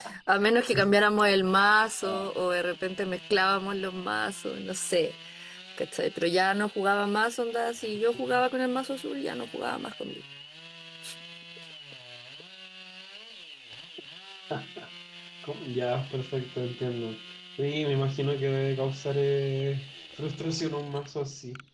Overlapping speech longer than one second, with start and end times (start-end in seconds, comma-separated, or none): none